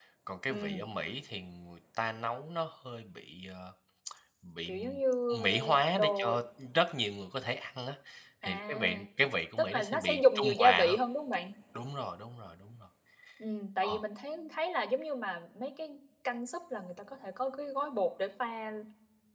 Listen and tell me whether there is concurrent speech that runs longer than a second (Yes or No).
Yes